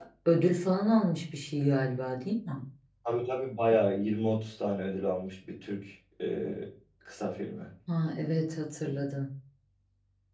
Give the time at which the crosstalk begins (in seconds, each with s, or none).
none